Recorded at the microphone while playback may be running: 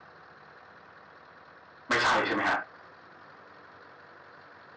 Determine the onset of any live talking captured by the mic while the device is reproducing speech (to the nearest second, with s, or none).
2 s